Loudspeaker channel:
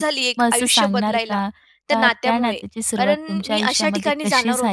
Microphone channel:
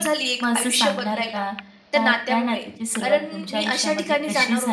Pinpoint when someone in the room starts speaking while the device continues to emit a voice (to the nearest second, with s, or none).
none